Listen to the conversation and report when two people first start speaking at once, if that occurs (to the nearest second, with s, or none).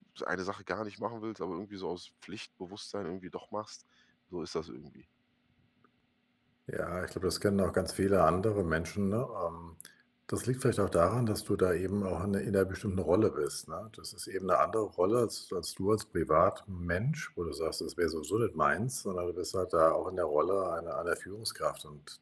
none